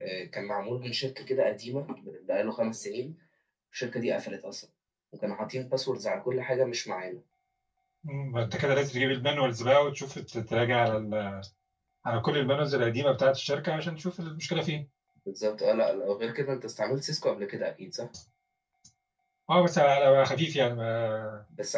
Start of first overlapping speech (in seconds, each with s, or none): none